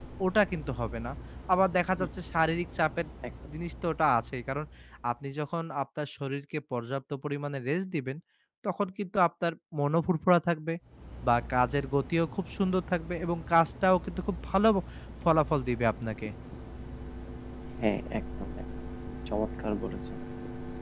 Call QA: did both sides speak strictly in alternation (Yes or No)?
Yes